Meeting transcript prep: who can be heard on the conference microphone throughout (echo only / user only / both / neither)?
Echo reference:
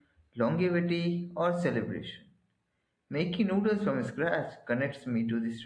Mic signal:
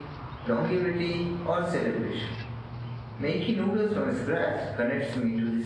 echo only